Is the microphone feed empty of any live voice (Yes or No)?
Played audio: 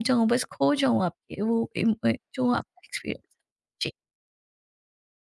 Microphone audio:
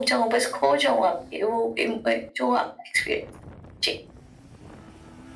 Yes